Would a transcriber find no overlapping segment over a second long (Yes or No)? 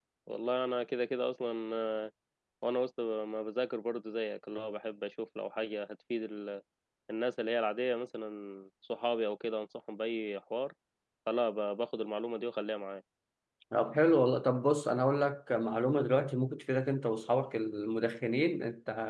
Yes